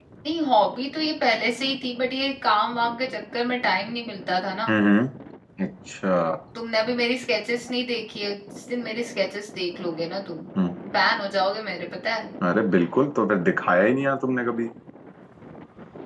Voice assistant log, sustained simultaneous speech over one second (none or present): none